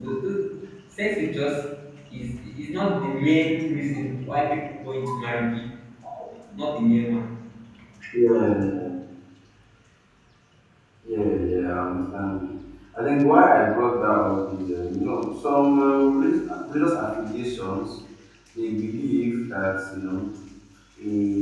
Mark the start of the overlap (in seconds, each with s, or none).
none